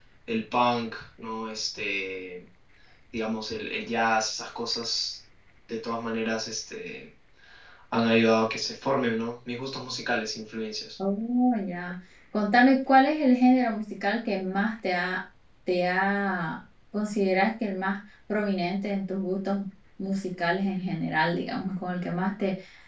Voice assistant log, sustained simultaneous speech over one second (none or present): none